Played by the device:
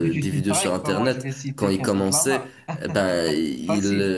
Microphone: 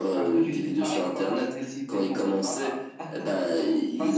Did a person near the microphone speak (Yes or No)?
No